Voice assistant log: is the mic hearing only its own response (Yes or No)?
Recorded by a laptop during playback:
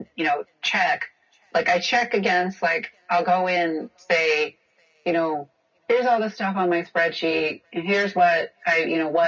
Yes